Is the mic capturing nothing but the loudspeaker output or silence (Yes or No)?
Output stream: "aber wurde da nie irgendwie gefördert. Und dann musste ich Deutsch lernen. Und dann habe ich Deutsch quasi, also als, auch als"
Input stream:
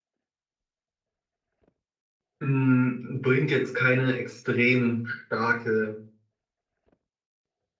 No